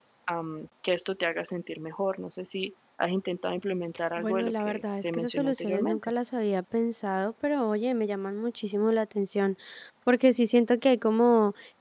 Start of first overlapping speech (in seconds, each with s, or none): 4.2 s